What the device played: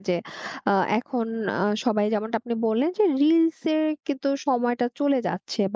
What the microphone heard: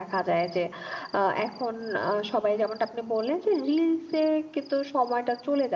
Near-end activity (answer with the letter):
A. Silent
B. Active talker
A